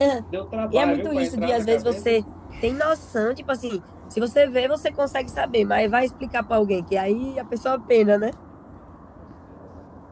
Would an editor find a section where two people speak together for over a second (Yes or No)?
Yes